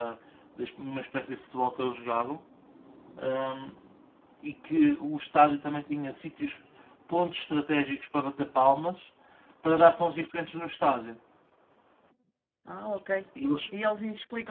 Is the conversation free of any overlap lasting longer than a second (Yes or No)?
Yes